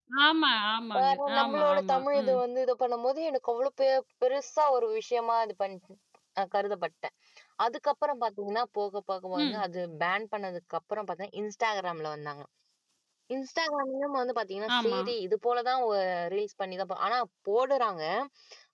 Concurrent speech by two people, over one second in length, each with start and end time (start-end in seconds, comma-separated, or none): 0.9-2.4